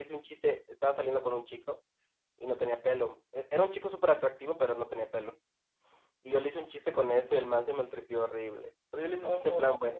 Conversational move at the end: listening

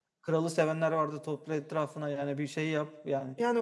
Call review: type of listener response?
taking over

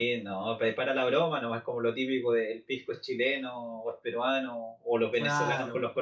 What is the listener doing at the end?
listening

